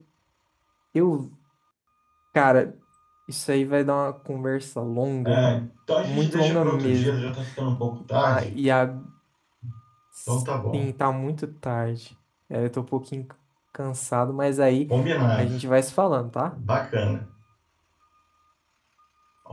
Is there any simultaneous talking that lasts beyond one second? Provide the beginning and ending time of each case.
6.0-7.3

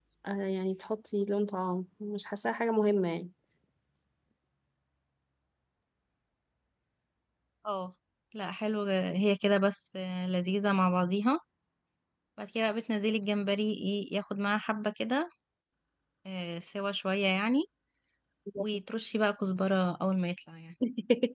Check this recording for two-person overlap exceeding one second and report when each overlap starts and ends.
none

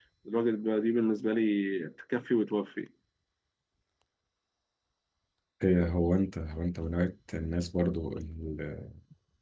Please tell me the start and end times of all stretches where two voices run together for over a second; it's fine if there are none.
none

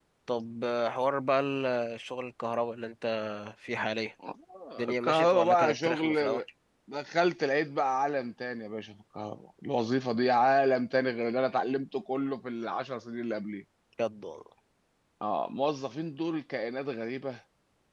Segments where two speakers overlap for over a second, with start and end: 4.8-6.4

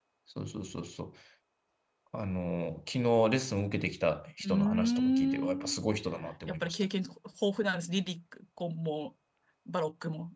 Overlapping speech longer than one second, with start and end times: 4.5-5.8

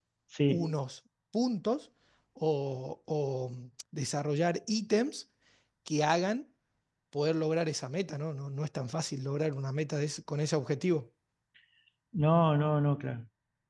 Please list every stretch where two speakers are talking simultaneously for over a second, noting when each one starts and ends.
none

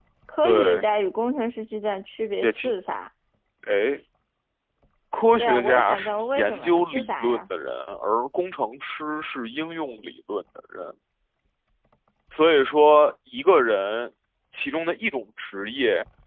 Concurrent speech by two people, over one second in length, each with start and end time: 5.4-7.4

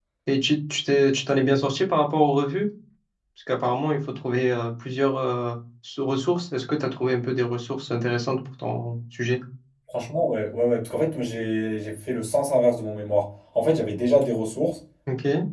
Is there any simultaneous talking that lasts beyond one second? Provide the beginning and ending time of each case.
none

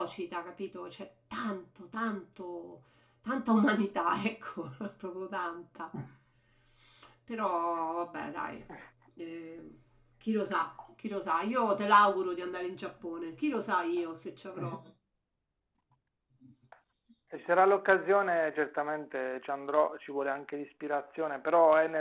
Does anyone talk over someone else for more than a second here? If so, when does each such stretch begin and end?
none

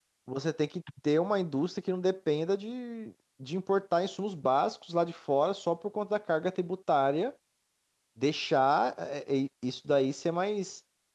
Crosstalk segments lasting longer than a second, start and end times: none

